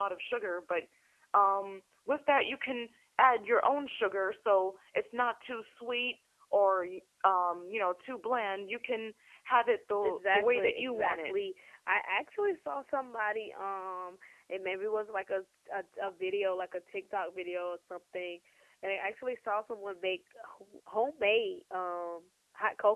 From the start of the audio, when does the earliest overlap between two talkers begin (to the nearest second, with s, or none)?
10 s